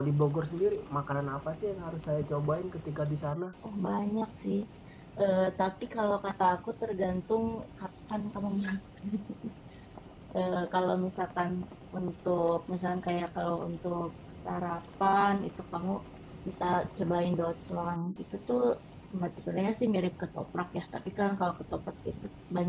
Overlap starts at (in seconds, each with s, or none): none